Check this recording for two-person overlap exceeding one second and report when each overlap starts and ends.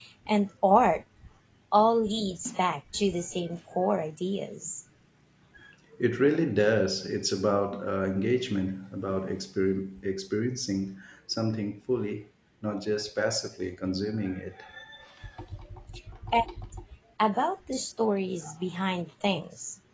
none

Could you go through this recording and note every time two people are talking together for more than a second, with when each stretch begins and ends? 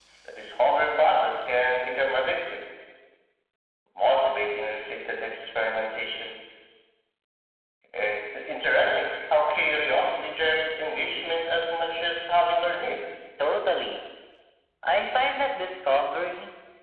none

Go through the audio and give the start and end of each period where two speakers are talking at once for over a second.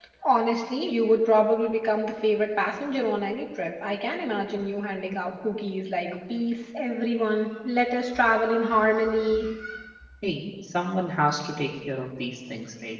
none

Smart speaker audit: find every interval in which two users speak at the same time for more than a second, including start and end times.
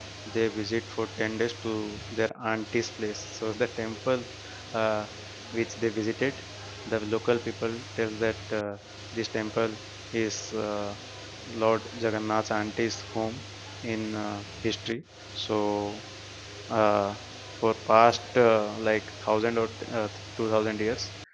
none

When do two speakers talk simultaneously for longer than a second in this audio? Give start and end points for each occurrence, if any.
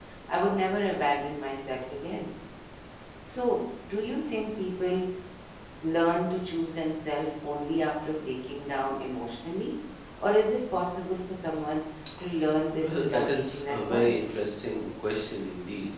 12.8-14.1

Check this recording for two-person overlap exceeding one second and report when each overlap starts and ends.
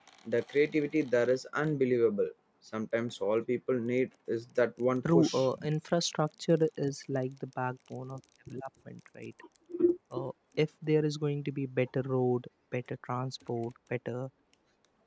none

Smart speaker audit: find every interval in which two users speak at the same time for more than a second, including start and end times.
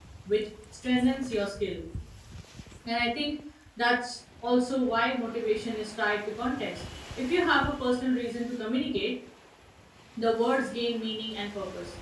none

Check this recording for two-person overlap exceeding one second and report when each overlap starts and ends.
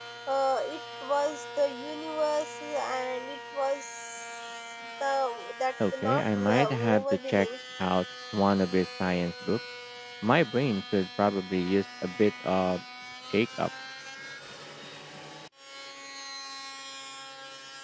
6.0-7.5

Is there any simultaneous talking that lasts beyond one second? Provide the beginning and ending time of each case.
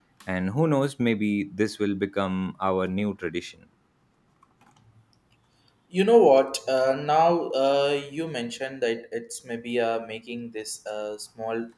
none

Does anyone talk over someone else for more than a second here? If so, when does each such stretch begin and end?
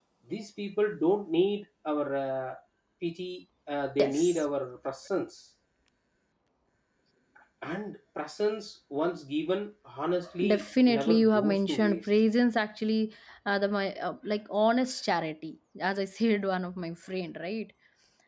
10.5-12.1

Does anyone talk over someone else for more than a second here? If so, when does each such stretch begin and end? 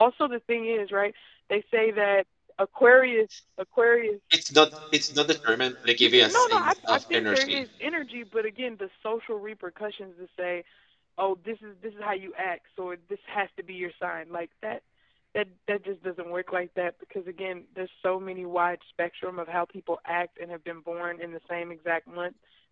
6.0-7.6

